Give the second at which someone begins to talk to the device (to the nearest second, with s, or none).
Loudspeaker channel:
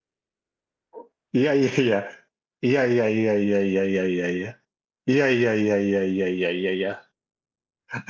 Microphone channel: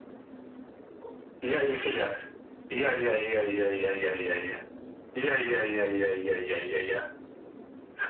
none